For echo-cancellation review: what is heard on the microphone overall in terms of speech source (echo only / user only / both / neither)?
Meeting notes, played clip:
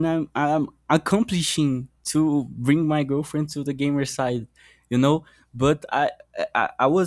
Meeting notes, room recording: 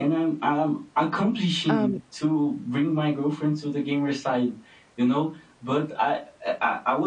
both